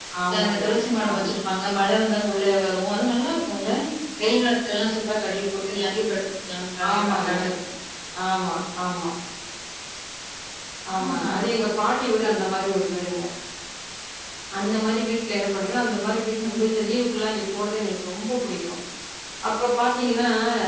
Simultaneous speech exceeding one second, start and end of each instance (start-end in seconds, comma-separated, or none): none